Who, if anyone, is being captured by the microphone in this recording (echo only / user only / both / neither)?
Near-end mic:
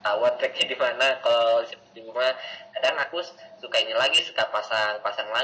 echo only